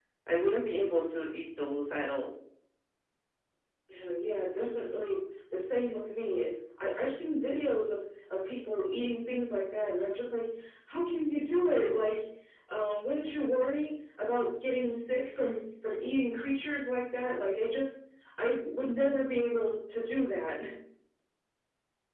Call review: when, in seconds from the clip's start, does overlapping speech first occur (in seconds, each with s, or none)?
none